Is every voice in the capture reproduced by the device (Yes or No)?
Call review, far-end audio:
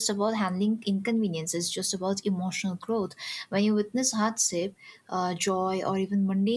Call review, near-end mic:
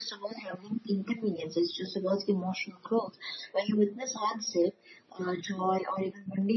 Yes